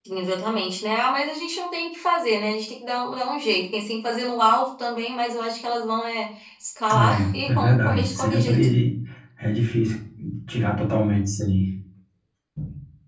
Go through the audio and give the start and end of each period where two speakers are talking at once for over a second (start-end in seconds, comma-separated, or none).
6.9-8.6